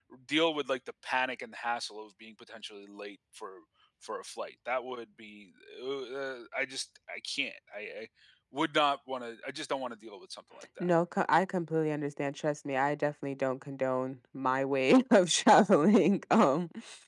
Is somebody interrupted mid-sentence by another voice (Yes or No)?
No